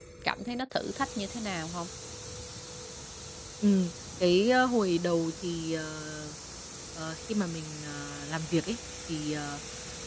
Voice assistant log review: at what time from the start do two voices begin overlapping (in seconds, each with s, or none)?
none